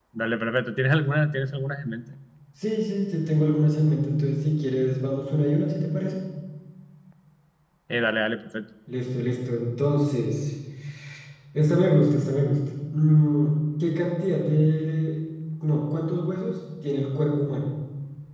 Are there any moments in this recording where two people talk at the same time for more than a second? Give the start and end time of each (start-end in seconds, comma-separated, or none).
none